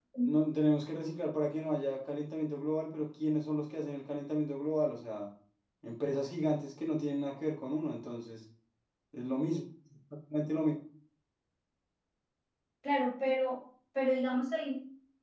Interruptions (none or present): none